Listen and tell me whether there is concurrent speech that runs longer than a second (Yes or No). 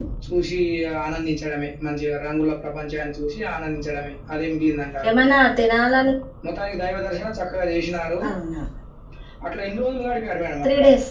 No